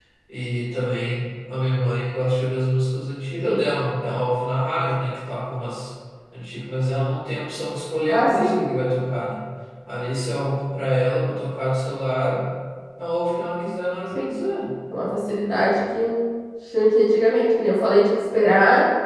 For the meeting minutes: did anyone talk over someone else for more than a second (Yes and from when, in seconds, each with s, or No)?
No